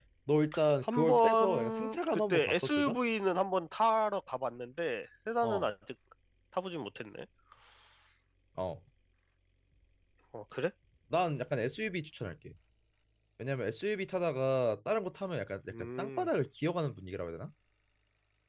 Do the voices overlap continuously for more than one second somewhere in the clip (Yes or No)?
Yes